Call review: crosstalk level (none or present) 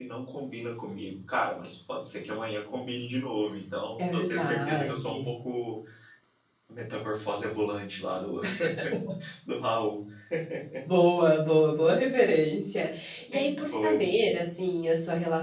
present